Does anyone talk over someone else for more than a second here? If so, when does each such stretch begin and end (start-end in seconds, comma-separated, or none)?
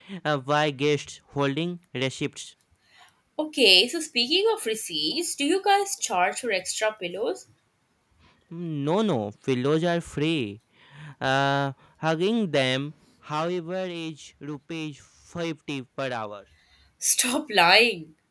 none